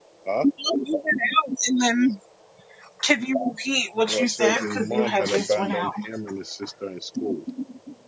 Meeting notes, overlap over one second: present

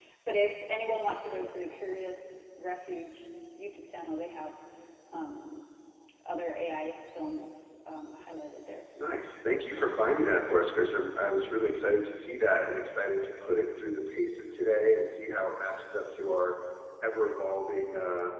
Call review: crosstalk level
none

